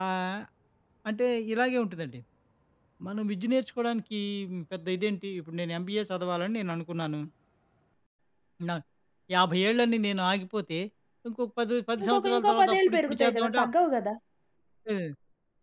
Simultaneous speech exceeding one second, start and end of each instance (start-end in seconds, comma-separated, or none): 12.0-13.6